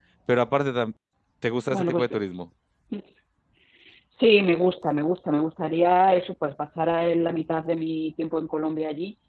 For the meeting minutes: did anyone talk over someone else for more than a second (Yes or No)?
No